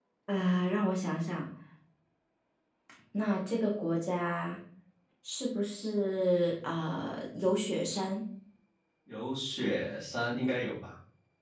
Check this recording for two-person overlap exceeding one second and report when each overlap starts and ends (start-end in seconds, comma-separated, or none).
none